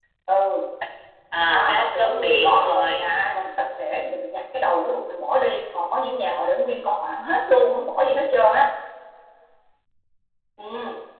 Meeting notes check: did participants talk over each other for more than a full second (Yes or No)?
Yes